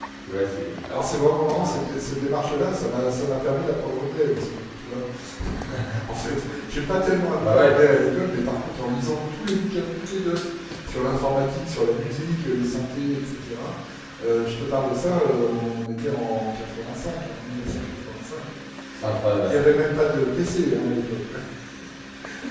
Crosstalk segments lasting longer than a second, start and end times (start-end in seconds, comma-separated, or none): none